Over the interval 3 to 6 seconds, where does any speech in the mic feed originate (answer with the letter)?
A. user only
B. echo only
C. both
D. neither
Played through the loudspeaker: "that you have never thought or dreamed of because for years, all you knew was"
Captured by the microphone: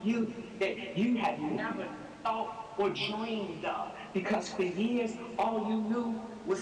B